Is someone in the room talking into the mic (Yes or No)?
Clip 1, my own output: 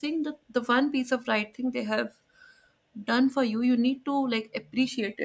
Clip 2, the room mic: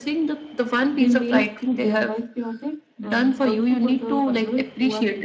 Yes